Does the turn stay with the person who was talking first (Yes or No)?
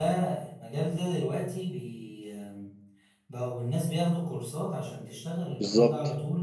Yes